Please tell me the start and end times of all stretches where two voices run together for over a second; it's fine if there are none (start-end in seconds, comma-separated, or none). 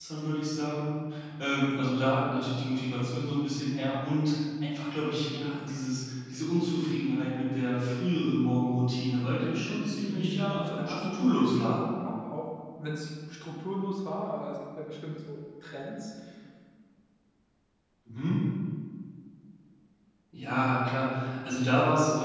9.2-11.8